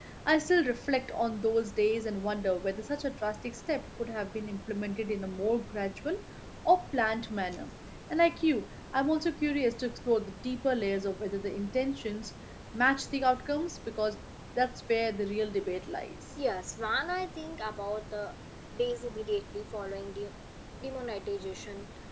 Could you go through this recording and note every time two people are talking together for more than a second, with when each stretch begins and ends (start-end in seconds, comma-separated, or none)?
none